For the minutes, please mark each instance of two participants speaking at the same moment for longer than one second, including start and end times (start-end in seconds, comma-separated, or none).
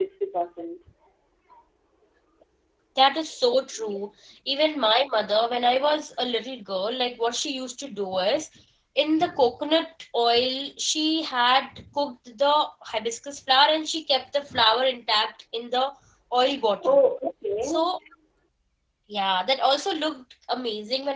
none